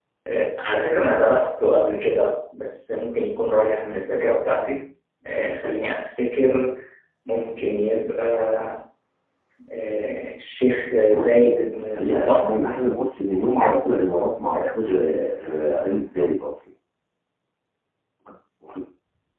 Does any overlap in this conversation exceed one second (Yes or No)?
Yes